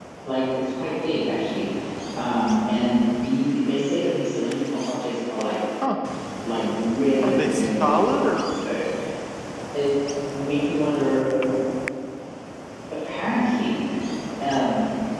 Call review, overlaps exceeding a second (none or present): present